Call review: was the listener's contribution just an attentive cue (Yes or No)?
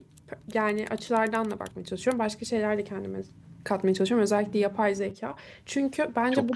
Yes